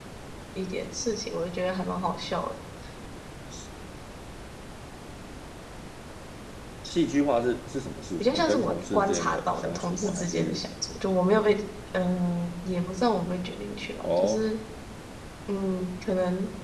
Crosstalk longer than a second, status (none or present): present